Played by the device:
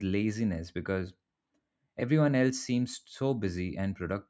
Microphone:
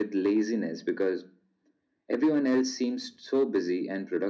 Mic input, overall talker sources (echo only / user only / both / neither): echo only